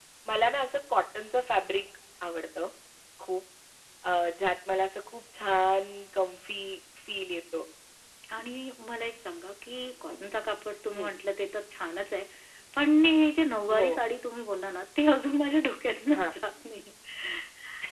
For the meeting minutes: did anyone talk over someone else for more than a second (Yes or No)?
No